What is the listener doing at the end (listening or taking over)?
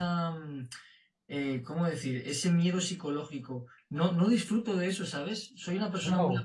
listening